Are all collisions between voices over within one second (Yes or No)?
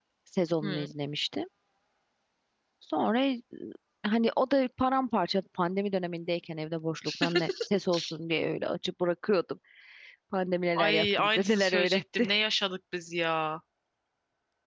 No